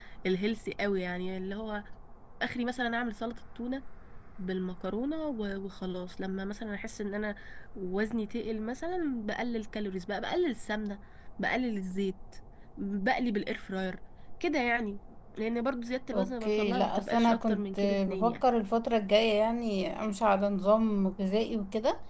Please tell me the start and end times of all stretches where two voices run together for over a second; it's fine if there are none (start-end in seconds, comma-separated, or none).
16.1-18.4